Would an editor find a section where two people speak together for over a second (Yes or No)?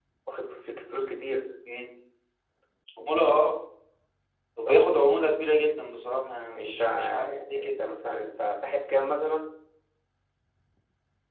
Yes